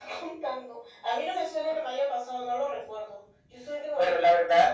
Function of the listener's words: taking over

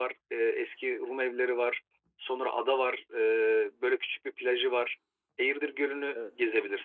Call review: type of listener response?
listening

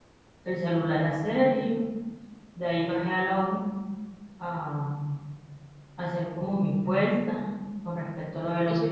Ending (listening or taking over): taking over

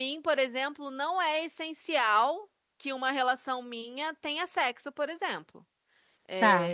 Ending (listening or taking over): listening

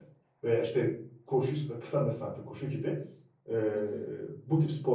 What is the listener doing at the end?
listening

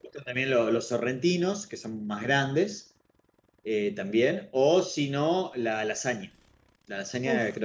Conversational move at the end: listening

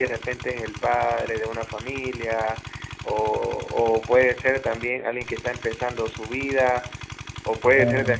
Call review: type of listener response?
listening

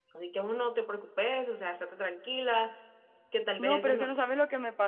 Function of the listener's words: taking over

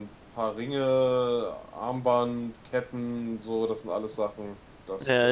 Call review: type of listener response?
taking over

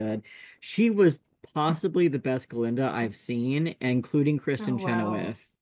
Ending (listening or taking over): listening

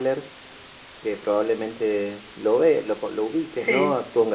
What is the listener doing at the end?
listening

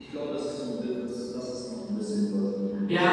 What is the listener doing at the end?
taking over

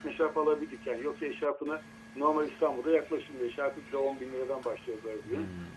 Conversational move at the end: listening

